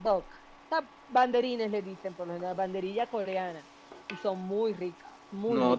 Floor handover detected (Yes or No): Yes